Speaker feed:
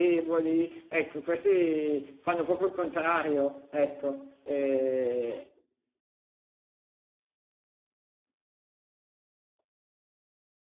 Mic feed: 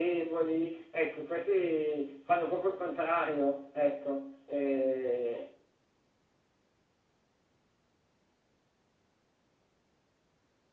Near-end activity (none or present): none